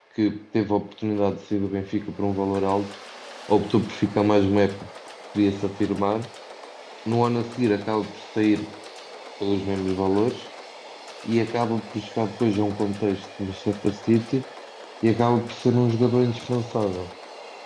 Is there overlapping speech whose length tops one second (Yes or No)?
No